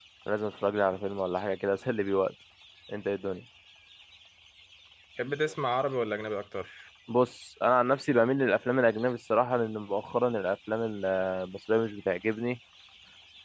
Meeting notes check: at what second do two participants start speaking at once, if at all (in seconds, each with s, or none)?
none